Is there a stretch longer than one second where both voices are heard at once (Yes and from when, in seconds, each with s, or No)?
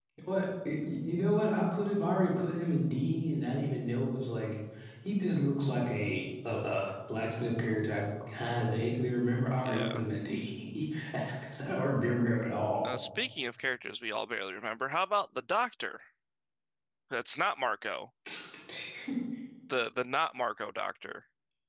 No